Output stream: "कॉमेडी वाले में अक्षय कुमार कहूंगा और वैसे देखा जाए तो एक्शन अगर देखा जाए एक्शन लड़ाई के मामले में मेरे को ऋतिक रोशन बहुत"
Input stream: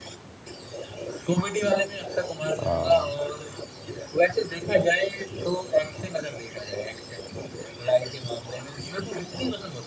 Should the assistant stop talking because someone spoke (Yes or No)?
Yes